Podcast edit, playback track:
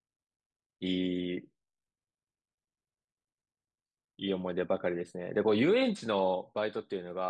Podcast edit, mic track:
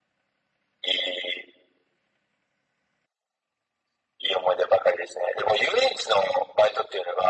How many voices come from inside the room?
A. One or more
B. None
B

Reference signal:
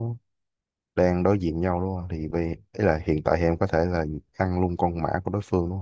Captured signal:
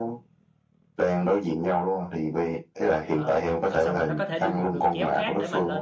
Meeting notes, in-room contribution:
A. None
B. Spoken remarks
B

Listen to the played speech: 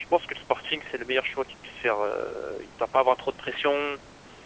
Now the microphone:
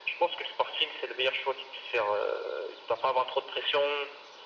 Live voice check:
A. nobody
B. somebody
A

